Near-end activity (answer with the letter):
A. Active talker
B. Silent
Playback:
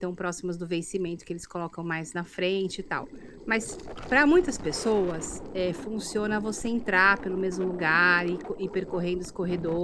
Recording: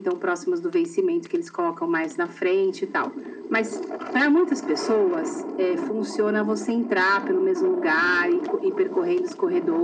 B